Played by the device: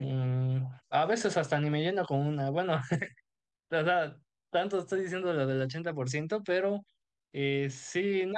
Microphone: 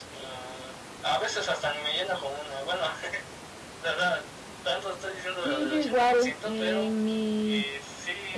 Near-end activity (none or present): present